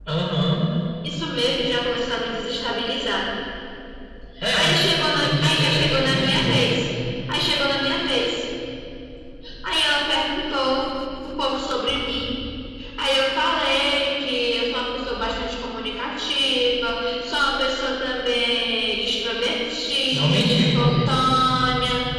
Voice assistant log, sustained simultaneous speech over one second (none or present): present